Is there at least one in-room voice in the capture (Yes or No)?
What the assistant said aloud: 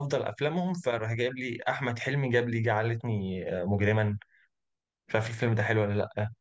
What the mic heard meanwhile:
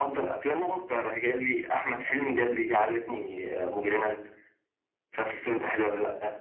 No